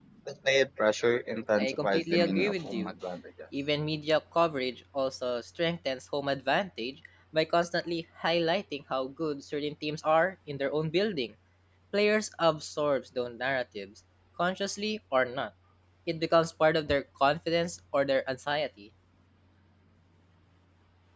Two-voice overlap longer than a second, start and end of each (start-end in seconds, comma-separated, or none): 1.6-2.9